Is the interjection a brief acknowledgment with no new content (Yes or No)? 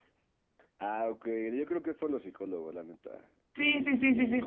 No